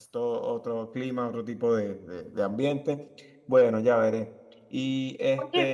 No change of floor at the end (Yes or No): No